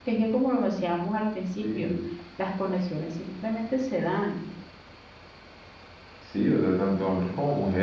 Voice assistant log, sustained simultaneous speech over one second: none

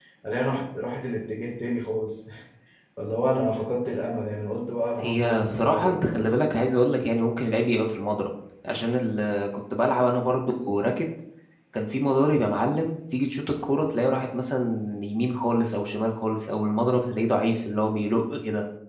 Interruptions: present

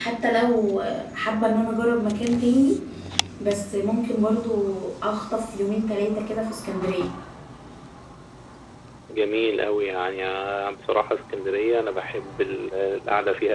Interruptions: none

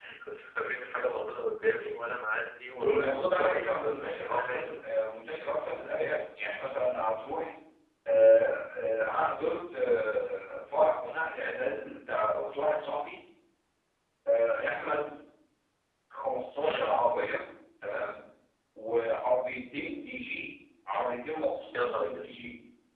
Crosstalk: present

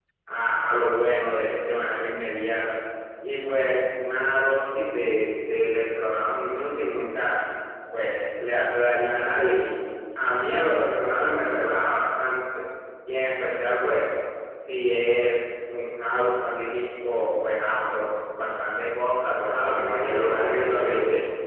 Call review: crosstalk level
present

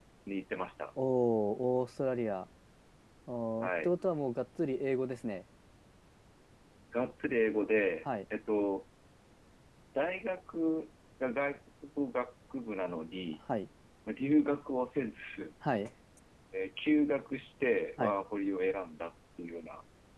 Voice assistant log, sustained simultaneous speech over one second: none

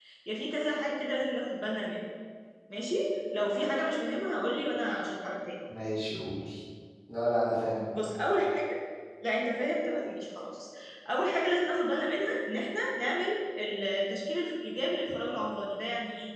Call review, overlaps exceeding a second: none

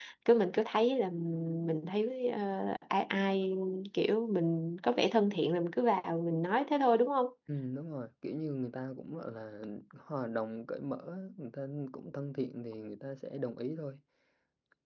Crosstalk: none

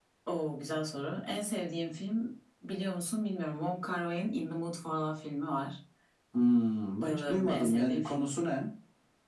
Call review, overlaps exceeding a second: present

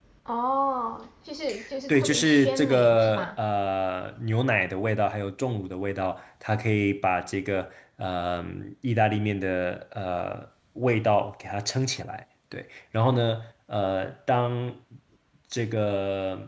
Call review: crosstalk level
present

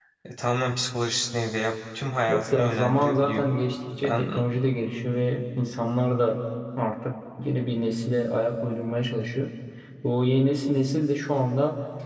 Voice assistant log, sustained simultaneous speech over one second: present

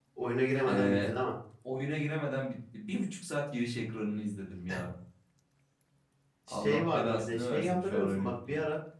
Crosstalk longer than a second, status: present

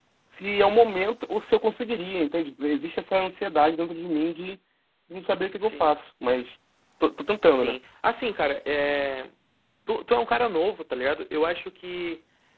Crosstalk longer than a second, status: none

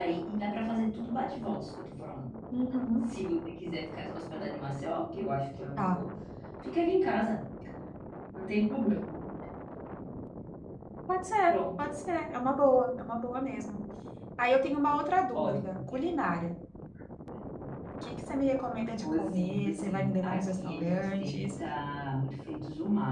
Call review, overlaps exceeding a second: present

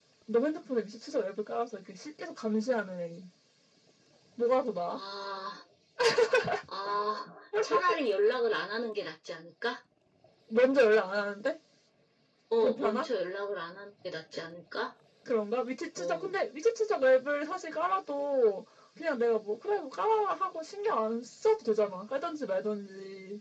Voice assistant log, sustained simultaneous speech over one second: none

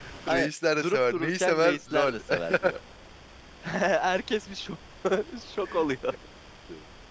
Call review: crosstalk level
present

